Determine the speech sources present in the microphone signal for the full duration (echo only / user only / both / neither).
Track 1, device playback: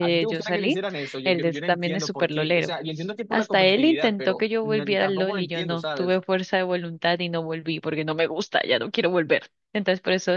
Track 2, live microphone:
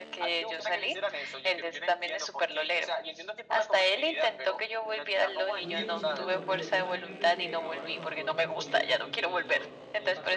both